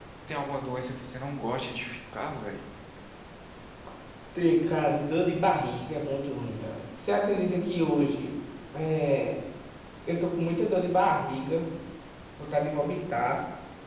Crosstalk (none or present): none